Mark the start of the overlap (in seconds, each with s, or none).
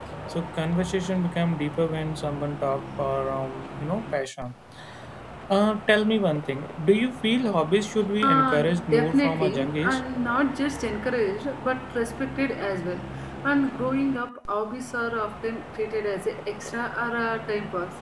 8.2 s